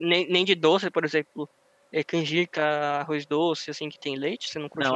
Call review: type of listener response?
taking over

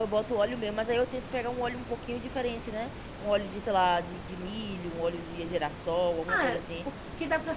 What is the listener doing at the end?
taking over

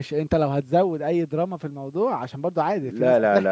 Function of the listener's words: taking over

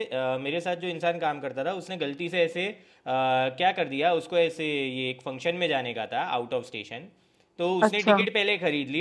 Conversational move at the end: listening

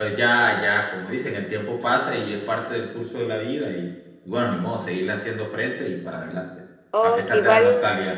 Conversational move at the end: taking over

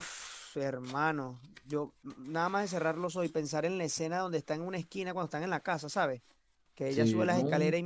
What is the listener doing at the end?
listening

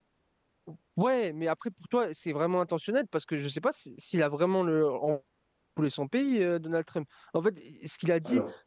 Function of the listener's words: listening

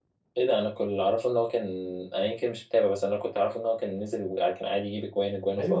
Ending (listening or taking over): taking over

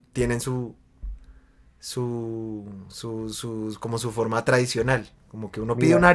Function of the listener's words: listening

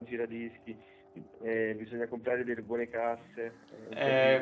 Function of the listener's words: taking over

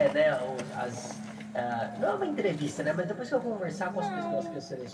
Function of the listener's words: listening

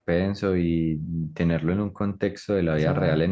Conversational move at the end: listening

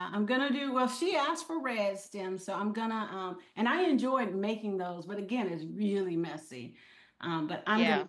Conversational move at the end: listening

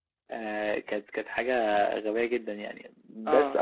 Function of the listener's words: listening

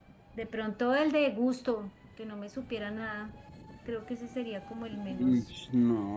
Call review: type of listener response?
taking over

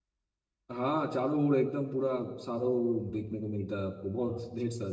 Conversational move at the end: taking over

